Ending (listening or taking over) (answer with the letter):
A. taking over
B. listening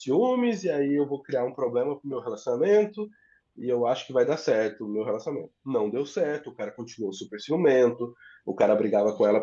B